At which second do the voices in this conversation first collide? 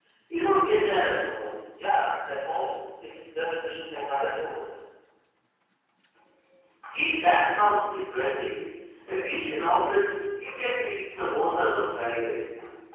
none

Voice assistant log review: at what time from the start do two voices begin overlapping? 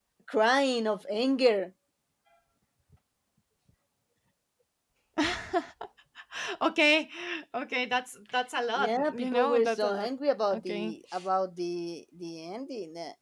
8.8 s

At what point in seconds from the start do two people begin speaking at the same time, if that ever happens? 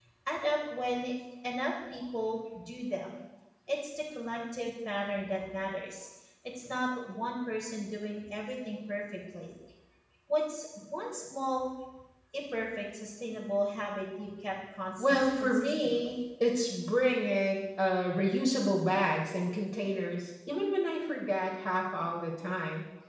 15.0 s

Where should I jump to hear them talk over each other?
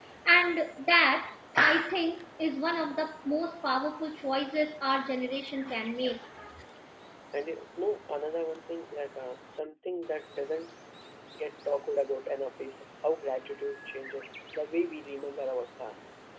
none

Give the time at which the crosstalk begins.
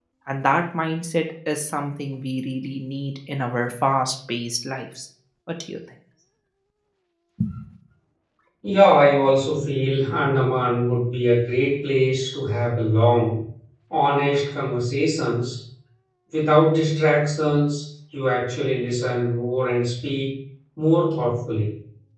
none

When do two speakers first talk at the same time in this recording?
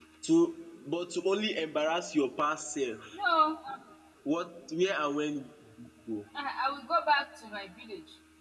none

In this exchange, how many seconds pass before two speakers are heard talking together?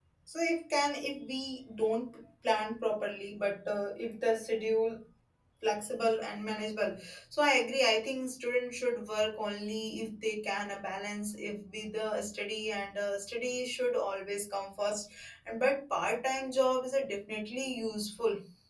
none

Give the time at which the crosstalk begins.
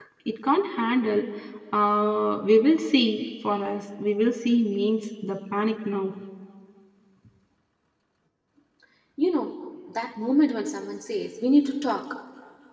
none

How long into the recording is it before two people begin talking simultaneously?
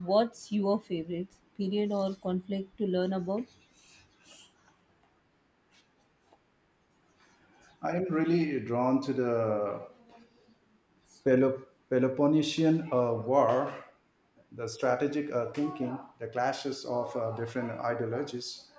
none

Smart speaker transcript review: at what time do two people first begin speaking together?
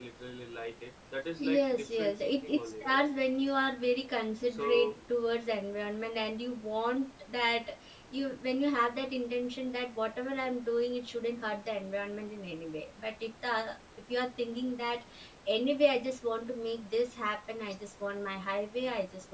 1.4 s

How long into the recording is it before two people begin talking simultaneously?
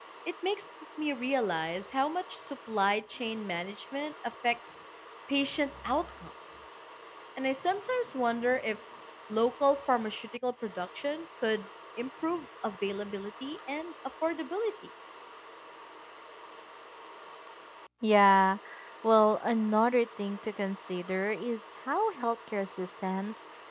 none

